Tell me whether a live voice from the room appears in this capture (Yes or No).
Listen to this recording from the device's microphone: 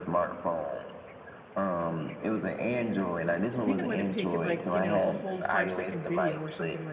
Yes